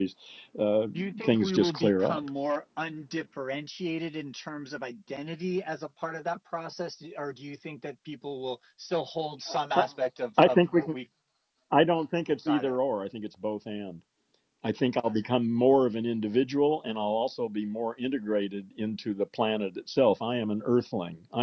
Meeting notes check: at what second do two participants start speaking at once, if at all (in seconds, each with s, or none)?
0.9 s